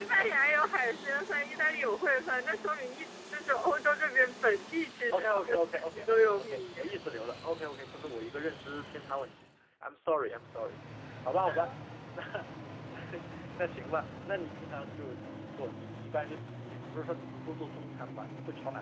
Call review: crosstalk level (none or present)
present